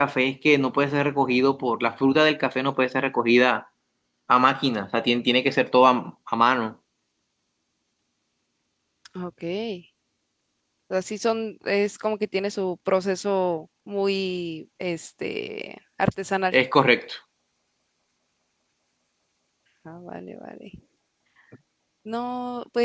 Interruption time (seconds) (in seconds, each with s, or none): none